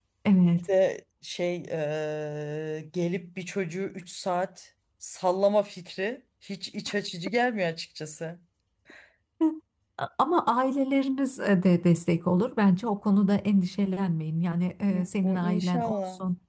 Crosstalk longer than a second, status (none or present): present